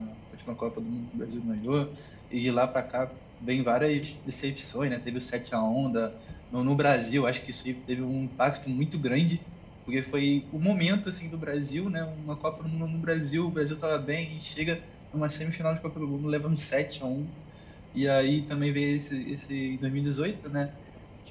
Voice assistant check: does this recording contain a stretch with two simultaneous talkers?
No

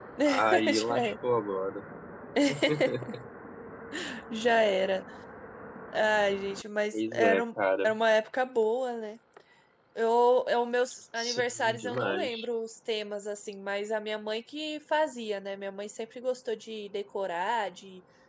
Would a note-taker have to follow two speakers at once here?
Yes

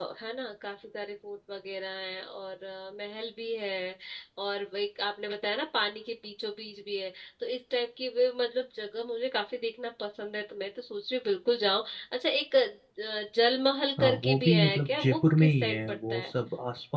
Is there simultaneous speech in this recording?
Yes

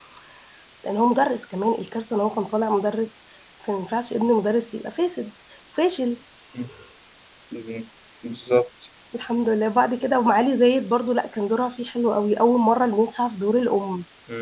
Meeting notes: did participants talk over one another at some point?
No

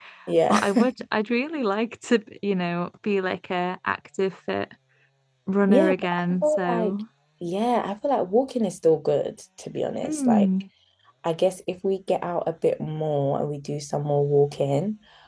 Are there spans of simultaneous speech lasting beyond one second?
Yes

